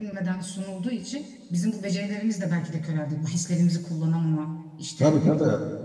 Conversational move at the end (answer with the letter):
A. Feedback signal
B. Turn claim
B